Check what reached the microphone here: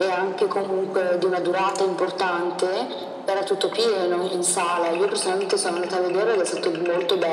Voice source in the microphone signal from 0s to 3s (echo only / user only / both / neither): echo only